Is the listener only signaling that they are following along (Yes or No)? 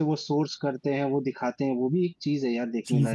No